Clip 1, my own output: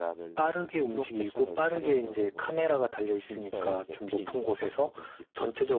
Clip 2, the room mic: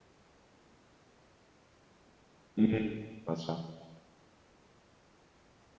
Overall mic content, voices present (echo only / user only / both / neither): user only